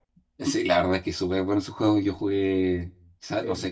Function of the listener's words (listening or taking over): listening